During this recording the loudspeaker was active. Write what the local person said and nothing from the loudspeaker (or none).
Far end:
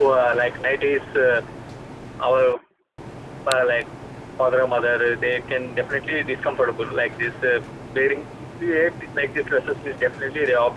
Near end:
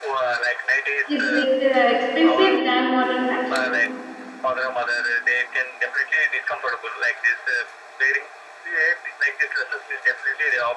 Is it uh, expensive than modern fashion?